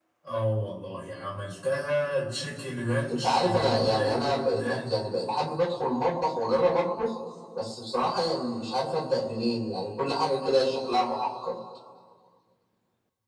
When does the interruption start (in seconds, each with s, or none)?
3.1 s